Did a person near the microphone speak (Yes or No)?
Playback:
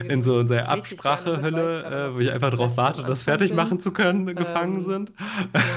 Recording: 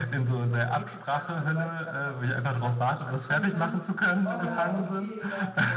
Yes